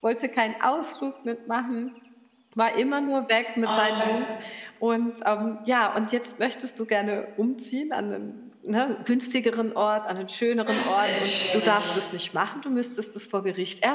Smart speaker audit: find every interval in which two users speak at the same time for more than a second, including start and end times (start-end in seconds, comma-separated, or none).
10.7-11.9